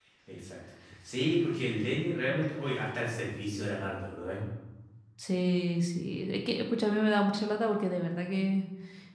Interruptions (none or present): none